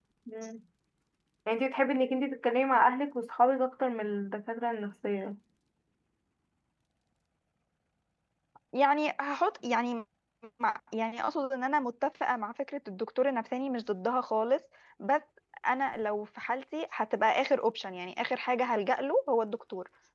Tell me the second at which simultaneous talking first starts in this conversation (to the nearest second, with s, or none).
none